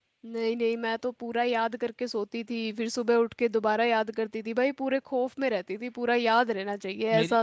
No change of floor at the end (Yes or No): No